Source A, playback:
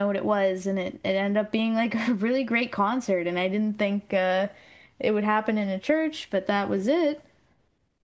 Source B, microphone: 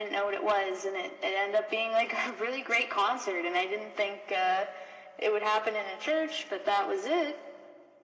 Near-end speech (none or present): none